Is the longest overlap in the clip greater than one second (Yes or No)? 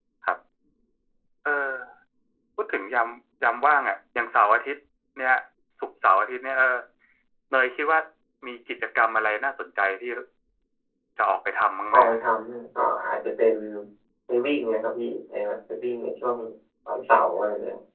No